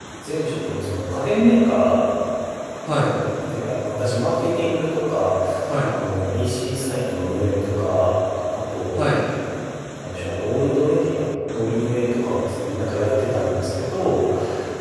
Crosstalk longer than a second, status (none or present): none